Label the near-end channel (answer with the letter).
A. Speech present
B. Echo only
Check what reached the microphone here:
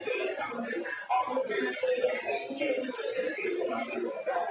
B